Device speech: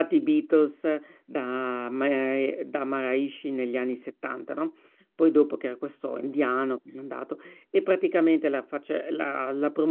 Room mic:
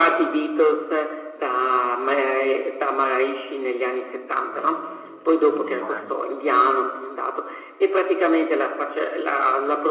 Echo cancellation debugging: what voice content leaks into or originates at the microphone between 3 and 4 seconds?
echo only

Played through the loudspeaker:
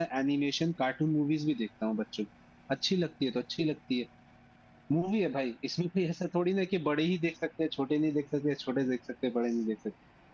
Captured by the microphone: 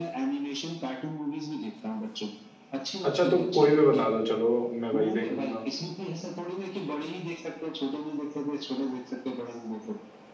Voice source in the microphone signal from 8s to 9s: echo only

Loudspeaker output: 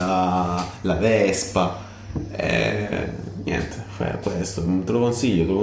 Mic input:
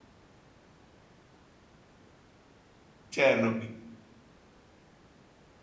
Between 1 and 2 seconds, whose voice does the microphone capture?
neither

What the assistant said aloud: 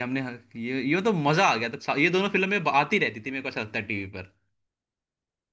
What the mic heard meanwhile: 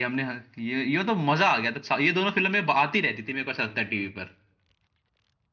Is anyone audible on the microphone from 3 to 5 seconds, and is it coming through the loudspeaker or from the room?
echo only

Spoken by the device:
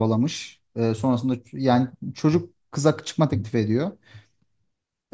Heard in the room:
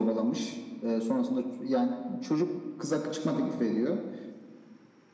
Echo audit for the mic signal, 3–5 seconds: echo only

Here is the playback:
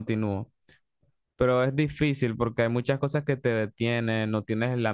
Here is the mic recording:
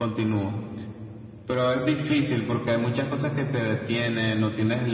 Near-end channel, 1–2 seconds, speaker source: echo only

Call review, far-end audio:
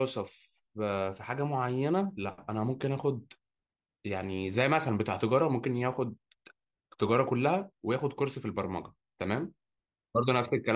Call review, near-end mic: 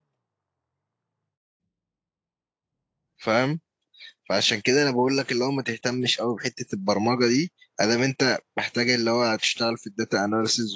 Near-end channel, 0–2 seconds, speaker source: neither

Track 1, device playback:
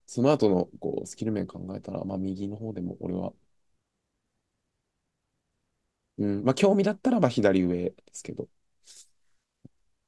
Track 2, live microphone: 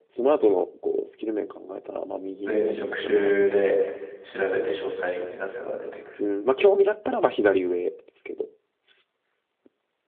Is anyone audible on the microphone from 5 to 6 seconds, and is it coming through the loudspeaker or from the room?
user only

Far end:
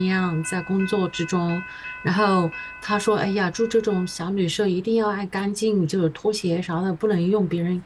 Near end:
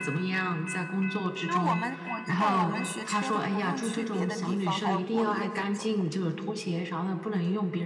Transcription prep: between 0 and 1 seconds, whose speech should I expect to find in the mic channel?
echo only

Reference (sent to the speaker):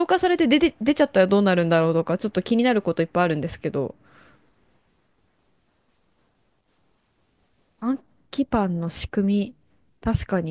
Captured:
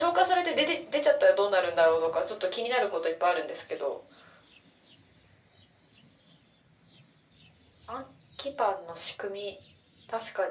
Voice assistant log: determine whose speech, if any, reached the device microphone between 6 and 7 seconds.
neither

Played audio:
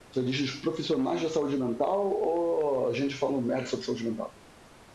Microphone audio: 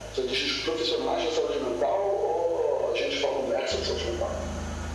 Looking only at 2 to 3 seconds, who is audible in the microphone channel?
echo only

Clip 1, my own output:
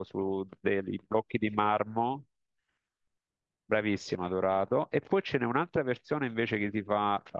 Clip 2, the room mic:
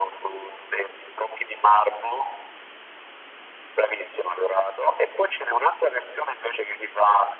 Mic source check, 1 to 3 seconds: echo only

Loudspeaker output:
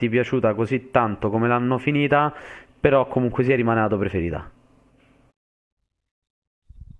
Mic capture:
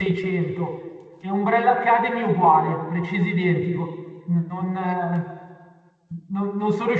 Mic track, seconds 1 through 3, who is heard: user only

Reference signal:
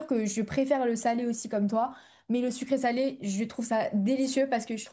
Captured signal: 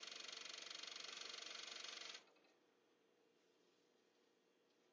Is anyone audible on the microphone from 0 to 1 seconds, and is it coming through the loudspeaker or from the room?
neither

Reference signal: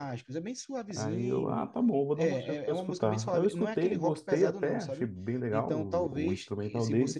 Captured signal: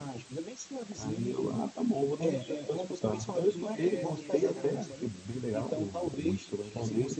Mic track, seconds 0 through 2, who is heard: echo only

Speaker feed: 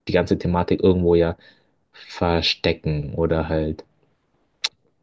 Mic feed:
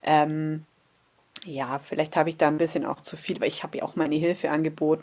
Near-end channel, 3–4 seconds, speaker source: user only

